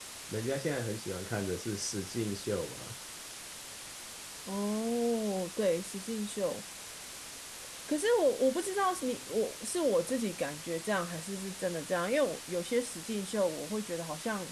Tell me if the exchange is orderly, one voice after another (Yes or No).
Yes